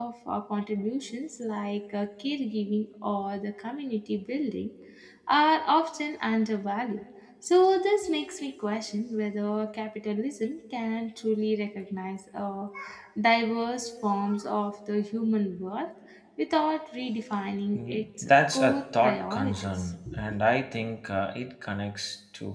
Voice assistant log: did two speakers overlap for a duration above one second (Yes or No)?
Yes